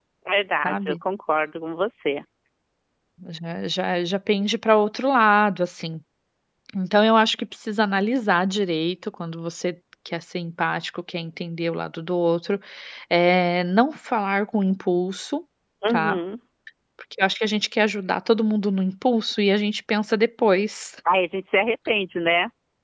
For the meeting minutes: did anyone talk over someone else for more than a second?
No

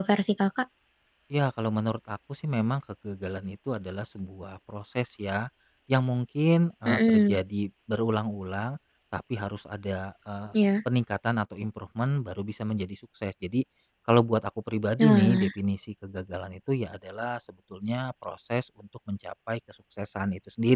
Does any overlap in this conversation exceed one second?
No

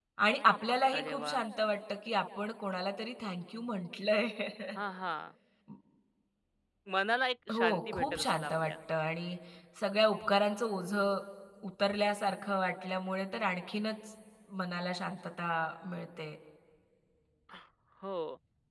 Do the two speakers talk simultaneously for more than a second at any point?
Yes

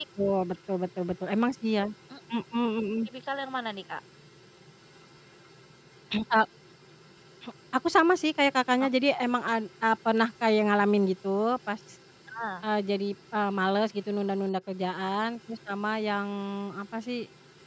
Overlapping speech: No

